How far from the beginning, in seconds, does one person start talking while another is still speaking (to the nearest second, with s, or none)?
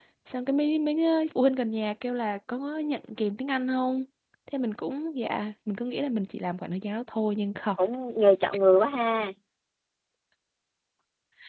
none